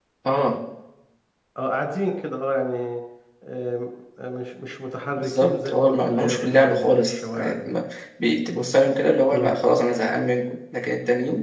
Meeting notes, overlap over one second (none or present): present